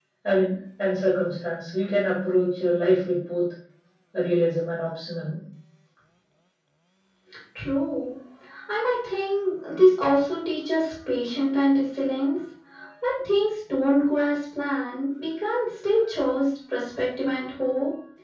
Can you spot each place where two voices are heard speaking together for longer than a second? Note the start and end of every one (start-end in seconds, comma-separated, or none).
none